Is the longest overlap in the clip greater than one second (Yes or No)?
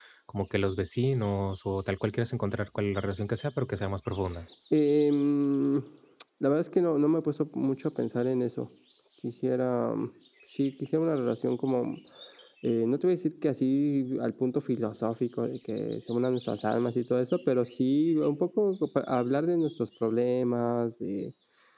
No